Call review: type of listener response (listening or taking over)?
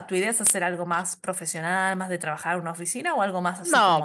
taking over